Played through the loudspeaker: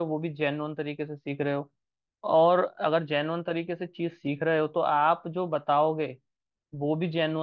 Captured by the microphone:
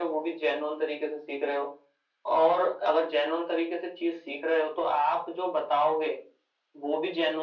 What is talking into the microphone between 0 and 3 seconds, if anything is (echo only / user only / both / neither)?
echo only